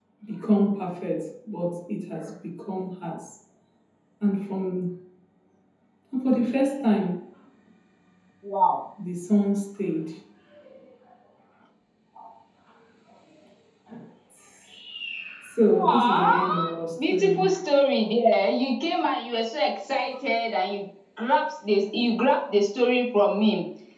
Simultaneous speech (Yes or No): Yes